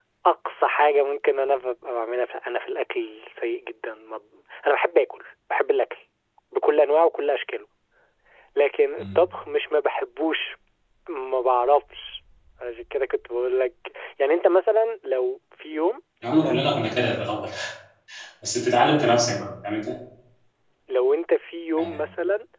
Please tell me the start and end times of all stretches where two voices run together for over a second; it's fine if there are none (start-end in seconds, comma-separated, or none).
none